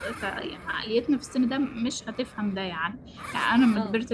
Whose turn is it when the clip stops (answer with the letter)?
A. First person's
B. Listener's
A